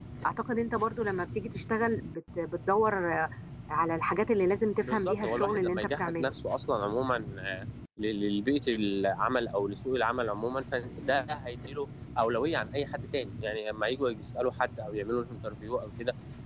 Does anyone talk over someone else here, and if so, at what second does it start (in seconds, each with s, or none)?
4.8 s